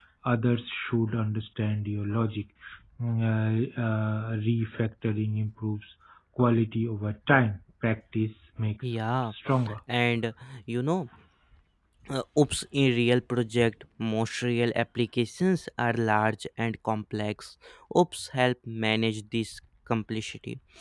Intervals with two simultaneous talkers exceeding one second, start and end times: none

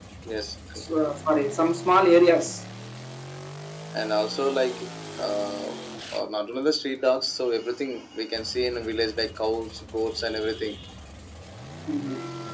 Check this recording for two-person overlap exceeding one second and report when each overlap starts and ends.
none

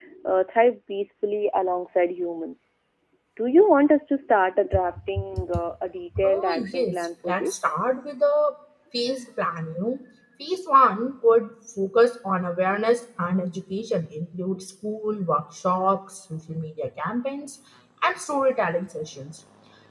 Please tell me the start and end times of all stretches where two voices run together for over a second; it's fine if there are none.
6.2-7.5

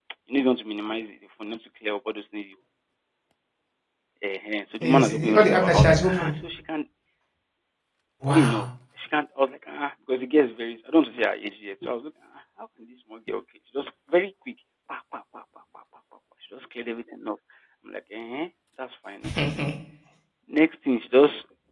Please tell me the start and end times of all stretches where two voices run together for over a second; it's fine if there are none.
4.8-6.4

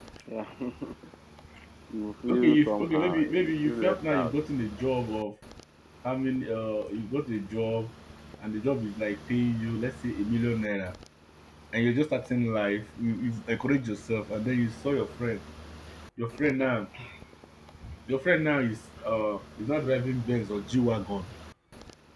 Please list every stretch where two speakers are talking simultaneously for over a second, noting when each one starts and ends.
2.3-4.4

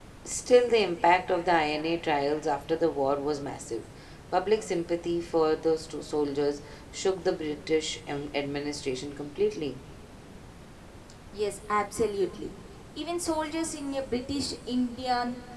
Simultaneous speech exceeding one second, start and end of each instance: none

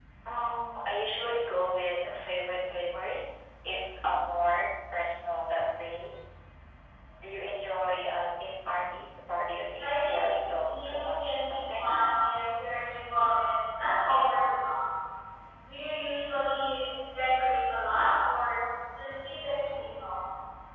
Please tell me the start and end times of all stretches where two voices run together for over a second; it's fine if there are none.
10.6-12.1

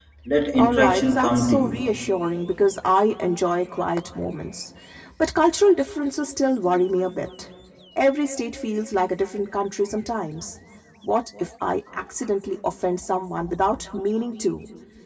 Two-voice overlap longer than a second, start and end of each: 0.6-1.8

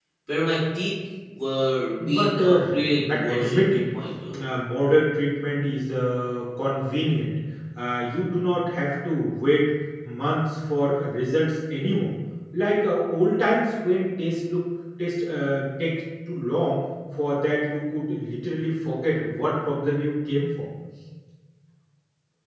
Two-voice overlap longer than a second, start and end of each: 2.0-3.8

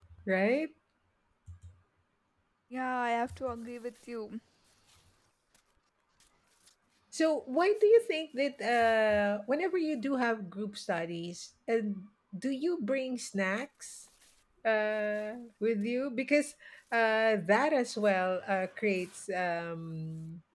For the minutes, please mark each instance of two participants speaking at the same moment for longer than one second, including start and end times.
none

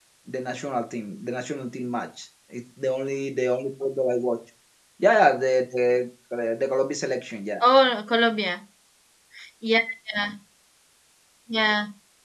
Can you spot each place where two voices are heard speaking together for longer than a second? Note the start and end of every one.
none

